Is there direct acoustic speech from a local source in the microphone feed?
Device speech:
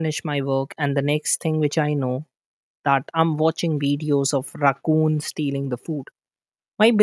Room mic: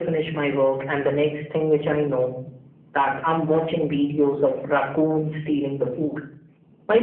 No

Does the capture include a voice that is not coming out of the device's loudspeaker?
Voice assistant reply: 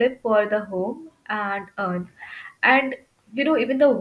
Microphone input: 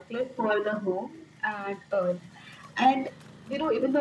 No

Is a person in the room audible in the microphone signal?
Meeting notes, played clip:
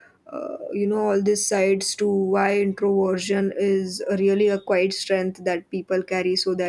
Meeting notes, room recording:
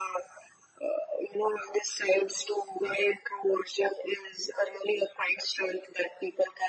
No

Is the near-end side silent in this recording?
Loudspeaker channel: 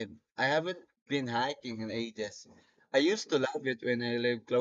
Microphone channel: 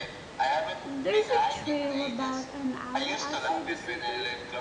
No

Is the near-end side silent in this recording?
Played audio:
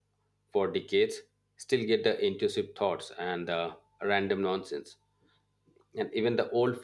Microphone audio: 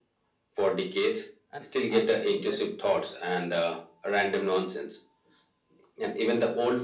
No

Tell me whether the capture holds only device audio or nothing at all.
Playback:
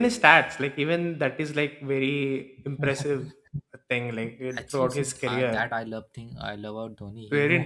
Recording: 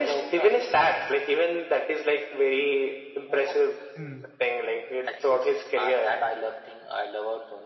No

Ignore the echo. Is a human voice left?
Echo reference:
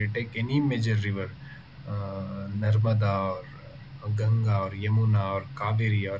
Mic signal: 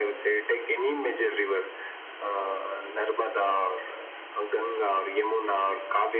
No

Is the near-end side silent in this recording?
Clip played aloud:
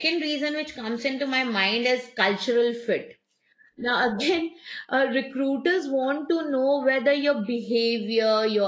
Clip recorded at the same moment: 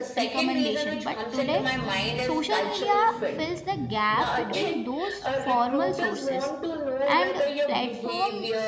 No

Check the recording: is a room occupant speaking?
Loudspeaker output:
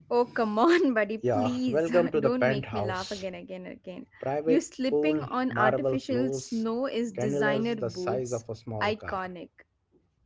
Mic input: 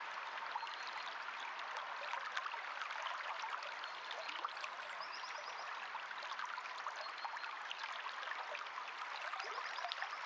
No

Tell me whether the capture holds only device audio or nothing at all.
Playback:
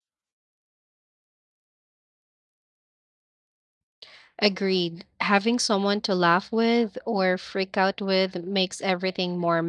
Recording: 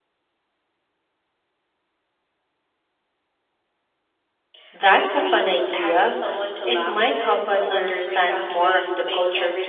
No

